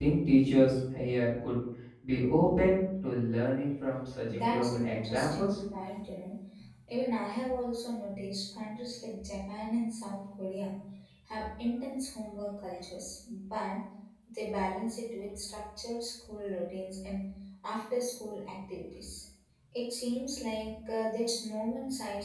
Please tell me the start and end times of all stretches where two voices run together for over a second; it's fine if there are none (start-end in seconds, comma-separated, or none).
4.2-5.6